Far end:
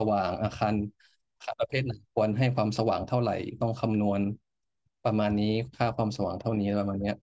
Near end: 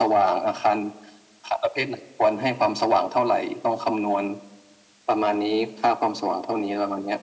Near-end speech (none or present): none